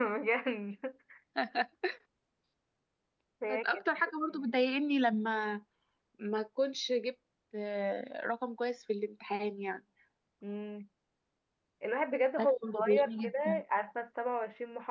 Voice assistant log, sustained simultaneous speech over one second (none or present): present